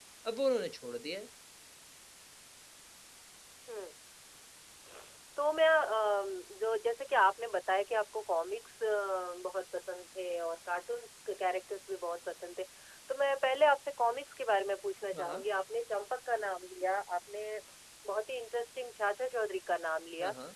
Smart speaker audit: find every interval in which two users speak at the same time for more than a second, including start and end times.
none

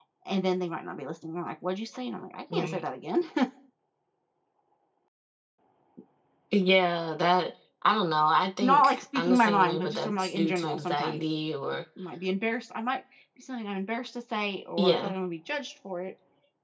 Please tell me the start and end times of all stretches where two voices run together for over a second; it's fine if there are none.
8.6-11.2

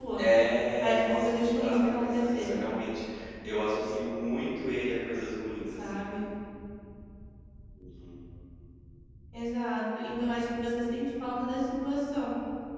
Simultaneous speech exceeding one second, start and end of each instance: 0.8-2.7

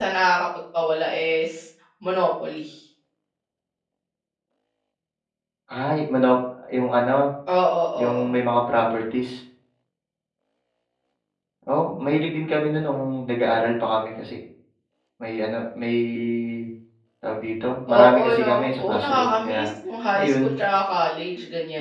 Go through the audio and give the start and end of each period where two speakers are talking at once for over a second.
17.9-19.6

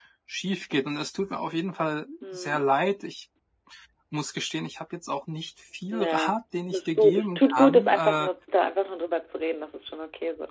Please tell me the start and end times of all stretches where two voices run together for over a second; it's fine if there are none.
6.7-8.3

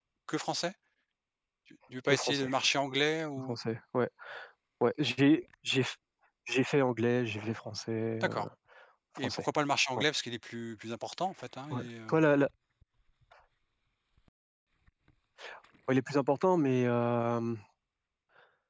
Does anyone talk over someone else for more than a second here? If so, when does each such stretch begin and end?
none

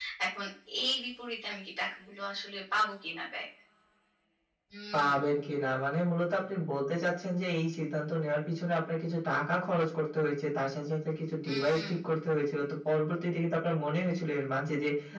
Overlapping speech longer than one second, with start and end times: none

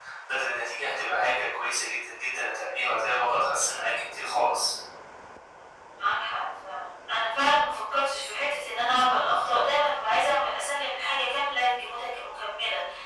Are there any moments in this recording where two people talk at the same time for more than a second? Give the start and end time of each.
none

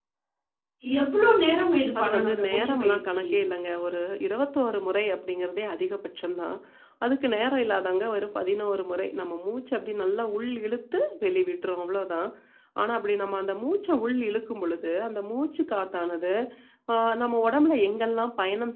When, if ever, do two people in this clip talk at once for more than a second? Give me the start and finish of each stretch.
2.0-3.2

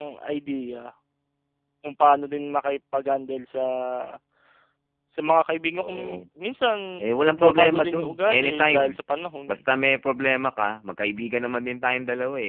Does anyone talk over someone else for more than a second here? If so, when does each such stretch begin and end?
7.2-9.0

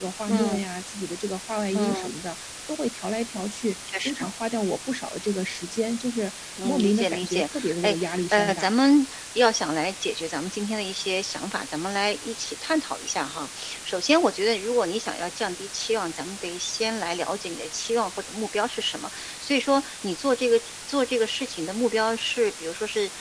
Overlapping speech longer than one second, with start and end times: 6.6-8.7

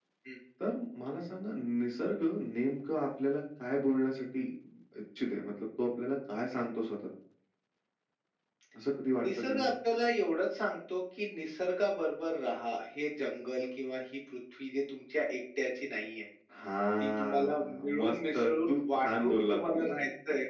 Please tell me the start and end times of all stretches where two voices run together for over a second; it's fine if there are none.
17.0-19.9

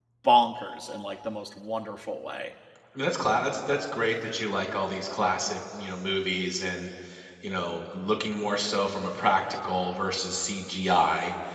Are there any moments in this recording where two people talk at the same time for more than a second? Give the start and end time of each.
none

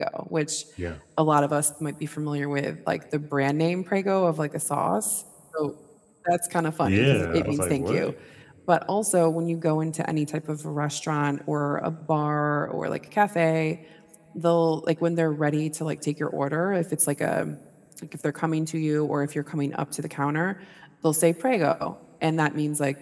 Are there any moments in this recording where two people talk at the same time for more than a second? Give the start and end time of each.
6.8-8.1

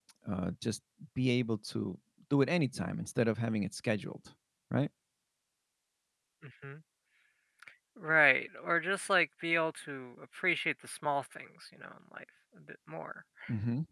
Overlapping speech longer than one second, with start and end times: none

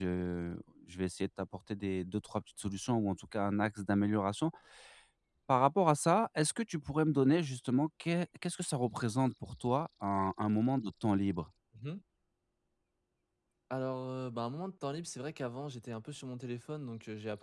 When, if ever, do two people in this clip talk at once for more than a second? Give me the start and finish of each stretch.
none

